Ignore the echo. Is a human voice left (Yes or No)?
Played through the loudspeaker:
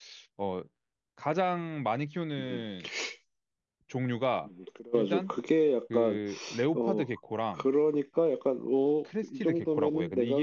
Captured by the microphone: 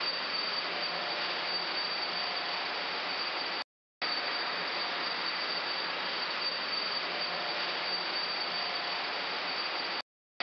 No